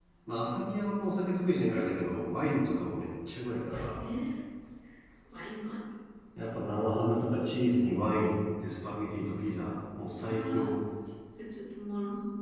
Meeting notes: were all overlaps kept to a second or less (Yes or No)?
Yes